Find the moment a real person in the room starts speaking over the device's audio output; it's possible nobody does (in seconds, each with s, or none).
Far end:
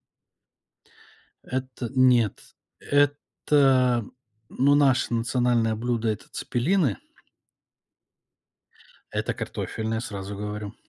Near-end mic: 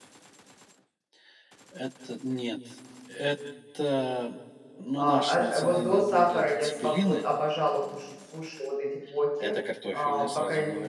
5.0 s